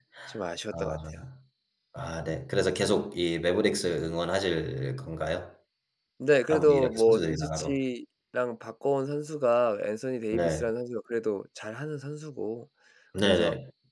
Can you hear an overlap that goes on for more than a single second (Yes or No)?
Yes